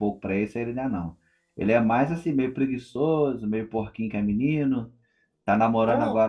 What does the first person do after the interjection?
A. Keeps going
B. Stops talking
A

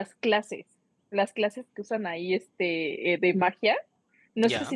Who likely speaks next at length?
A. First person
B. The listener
A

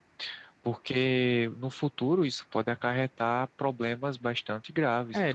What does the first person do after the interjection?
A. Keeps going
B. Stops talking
B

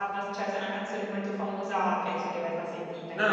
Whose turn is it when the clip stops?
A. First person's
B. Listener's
B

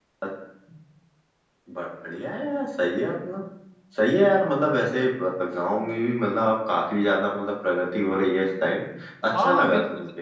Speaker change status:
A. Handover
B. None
A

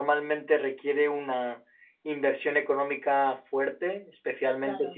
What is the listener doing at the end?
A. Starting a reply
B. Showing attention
B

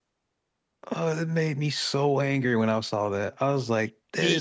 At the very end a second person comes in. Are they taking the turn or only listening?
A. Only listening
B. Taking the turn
A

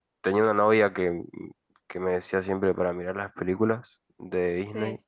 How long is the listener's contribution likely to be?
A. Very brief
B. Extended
A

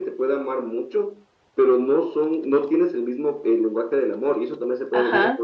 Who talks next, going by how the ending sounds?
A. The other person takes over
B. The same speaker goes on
A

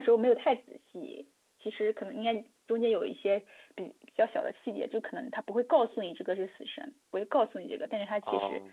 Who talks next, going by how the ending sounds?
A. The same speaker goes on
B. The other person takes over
B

